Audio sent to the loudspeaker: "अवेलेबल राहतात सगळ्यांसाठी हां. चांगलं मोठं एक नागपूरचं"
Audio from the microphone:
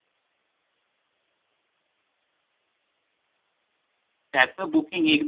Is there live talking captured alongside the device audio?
Yes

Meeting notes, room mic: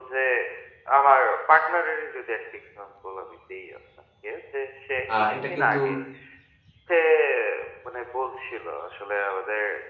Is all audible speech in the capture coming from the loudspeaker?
No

